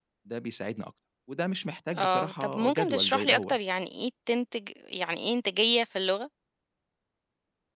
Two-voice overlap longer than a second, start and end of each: 2.0-3.6

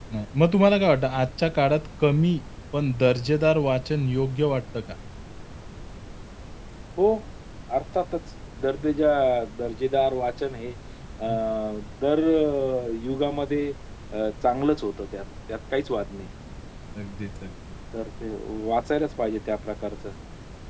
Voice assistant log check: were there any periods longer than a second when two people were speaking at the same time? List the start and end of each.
none

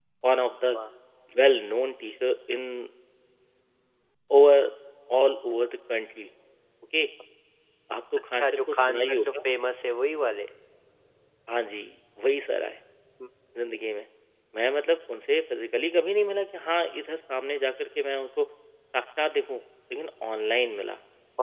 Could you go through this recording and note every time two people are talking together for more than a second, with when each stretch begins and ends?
8.3-9.5

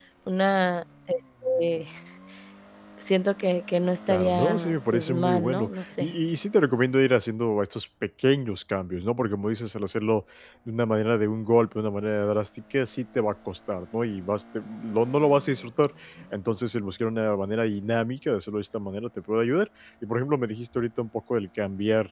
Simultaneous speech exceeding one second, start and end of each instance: 4.1-6.1

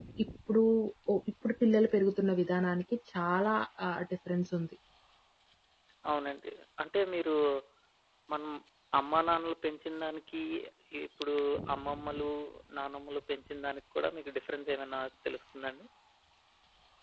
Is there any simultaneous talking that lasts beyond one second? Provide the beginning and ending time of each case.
none

